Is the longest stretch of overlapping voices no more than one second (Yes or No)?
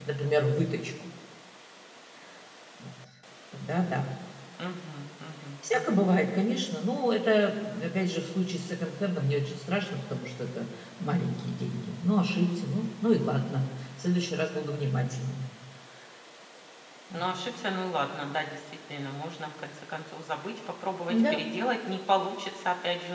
Yes